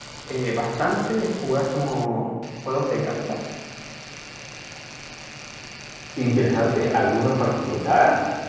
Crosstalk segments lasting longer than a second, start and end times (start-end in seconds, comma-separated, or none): none